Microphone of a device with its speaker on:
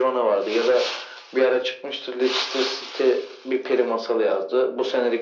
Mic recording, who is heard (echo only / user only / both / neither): echo only